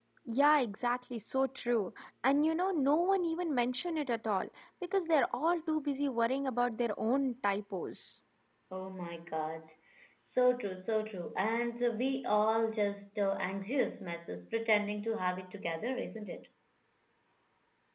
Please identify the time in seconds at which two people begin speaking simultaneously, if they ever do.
none

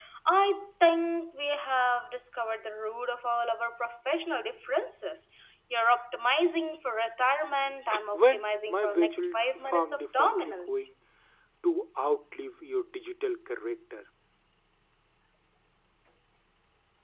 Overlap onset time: 8 s

